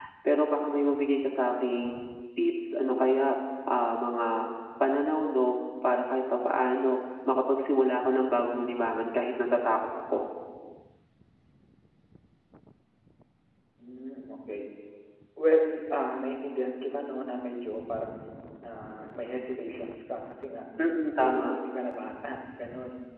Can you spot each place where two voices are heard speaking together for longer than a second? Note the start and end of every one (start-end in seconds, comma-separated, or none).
none